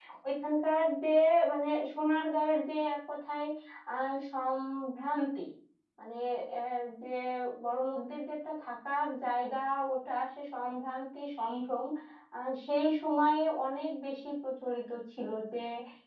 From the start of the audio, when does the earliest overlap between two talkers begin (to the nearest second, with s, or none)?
none